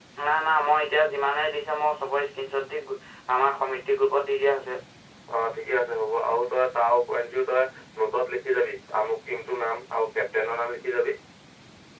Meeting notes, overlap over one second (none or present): none